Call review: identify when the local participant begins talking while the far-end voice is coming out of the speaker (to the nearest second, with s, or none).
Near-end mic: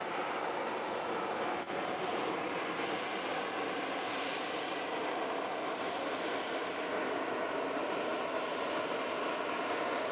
none